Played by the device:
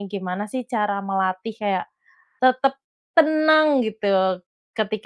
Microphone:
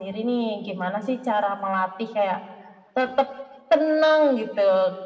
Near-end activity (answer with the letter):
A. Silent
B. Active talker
A